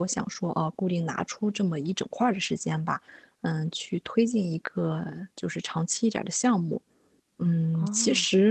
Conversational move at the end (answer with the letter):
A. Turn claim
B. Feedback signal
B